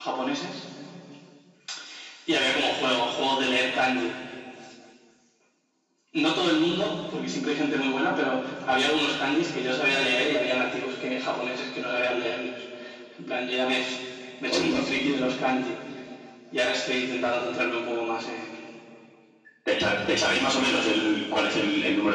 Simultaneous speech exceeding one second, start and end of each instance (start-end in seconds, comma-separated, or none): none